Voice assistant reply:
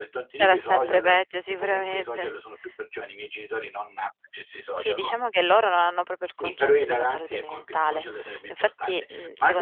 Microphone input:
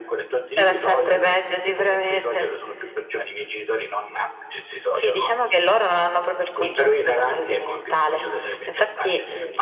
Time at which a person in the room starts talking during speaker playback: none

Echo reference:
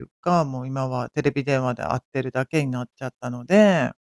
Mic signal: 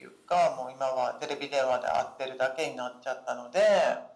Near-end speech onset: none

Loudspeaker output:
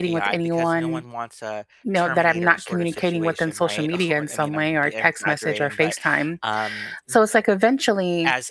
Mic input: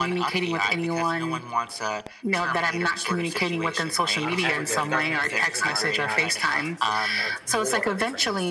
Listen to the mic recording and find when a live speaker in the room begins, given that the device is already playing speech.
4.2 s

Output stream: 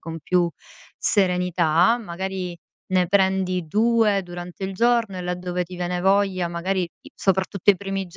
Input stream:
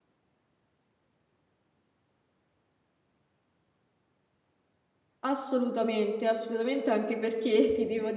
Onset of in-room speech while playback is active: 5.2 s

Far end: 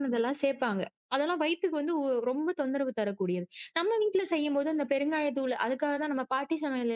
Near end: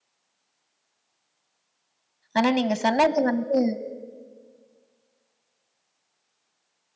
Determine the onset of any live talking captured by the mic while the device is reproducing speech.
2.4 s

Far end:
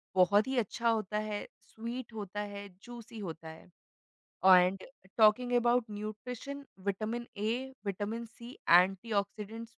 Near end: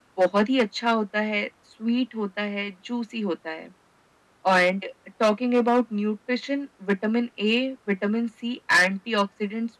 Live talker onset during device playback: none

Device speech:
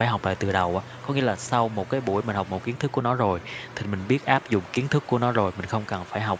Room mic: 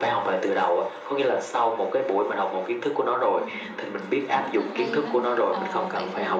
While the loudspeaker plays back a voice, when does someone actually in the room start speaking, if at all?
3.3 s

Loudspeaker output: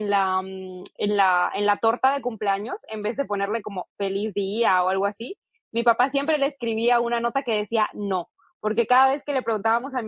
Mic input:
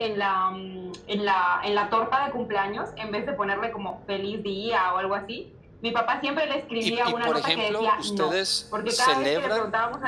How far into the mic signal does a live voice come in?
6.8 s

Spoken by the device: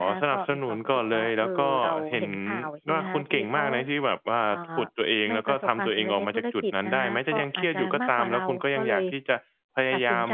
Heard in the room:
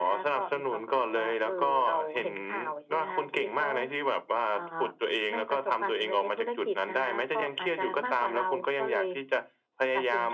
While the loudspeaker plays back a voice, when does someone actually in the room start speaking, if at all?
none

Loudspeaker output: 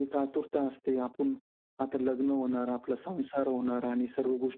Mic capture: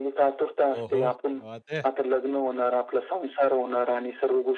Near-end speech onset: 0.8 s

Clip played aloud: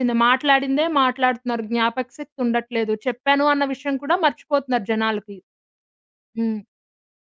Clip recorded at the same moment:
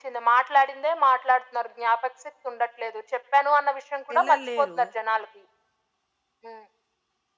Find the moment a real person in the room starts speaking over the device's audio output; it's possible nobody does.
4.1 s

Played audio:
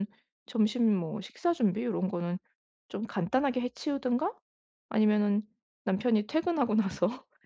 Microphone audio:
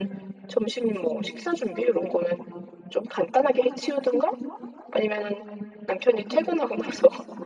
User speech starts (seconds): none

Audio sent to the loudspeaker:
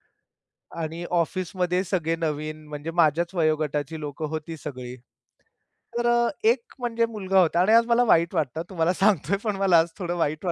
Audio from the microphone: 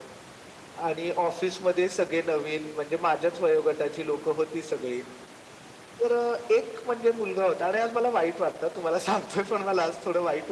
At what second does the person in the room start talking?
none

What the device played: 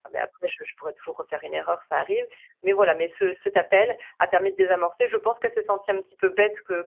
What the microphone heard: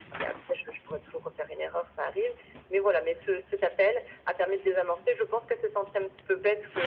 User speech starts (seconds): none

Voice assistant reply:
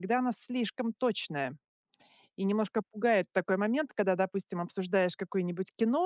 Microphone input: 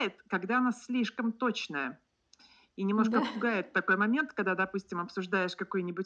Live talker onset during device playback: 2.9 s

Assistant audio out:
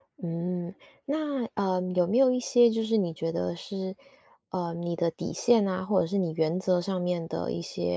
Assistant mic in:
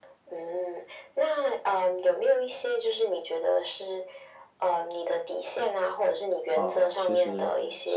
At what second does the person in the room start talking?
6.5 s

